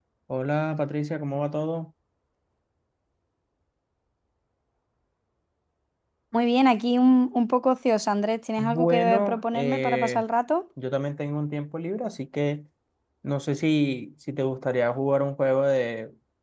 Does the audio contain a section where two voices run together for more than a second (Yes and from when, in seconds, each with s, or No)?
Yes, from 8.6 s